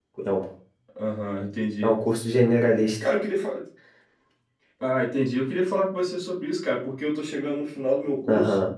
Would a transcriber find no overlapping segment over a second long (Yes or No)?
Yes